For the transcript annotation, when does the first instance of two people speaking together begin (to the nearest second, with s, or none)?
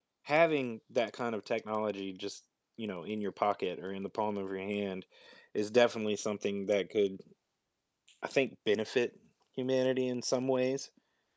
none